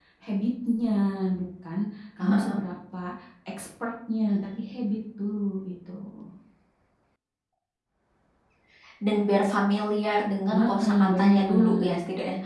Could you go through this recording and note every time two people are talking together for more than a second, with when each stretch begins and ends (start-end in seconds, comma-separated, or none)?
10.5-11.9